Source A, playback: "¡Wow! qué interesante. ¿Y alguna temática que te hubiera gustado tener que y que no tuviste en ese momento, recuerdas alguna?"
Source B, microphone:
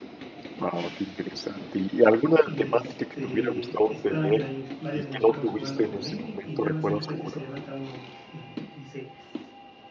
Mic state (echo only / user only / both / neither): both